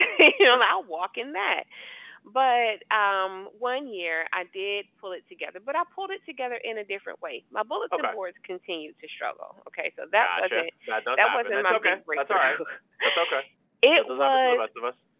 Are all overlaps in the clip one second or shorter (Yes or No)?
No